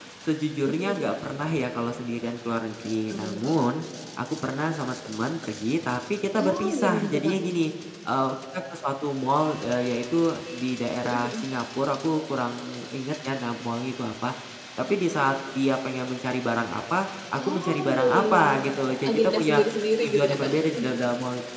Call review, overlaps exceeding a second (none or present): present